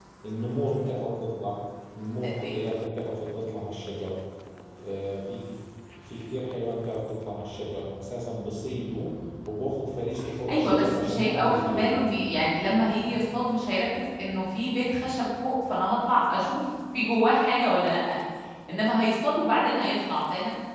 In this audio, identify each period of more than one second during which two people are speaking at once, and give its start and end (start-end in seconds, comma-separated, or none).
10.5-12.2